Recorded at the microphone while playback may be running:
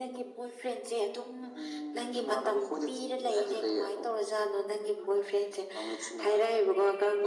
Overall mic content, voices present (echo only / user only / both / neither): echo only